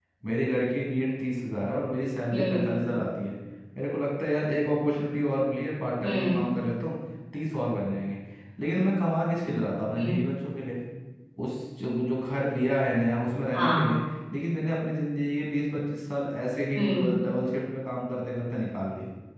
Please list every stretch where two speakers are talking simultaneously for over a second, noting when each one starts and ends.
none

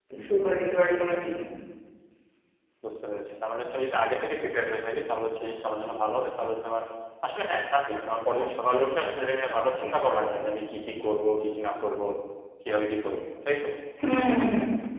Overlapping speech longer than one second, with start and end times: none

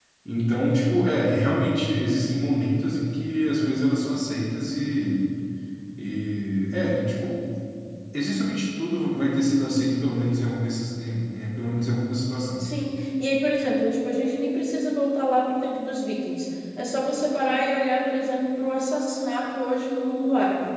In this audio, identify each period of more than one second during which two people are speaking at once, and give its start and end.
none

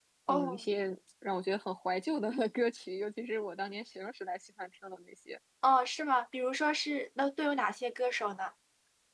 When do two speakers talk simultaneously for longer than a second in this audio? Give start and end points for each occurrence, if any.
none

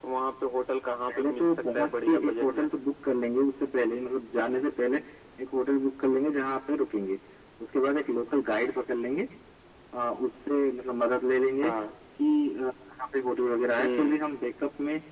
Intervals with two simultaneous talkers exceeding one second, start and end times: 1.1-2.7

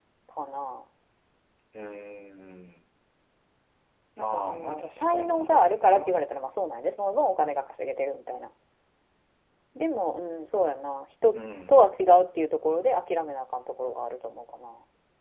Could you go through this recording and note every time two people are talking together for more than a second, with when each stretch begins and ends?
4.2-6.2

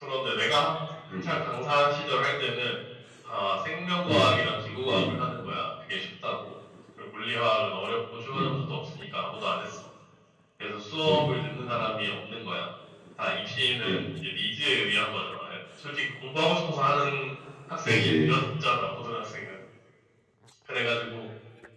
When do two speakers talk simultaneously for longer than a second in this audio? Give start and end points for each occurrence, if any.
none

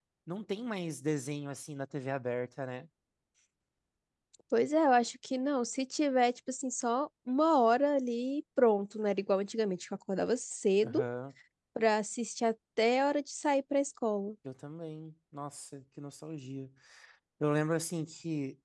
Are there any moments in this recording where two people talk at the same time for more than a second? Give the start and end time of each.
none

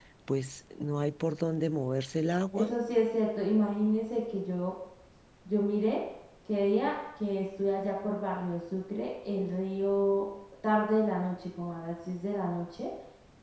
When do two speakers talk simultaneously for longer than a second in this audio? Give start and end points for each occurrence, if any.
none

